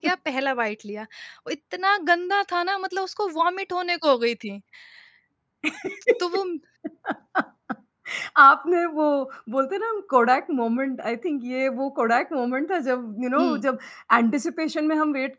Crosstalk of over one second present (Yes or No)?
No